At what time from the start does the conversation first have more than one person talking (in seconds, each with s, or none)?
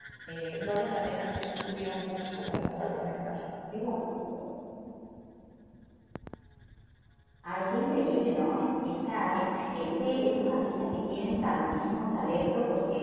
none